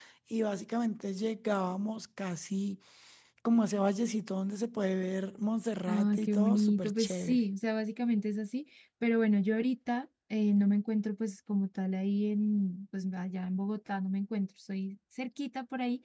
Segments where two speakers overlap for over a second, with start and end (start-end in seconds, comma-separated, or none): 5.9-7.4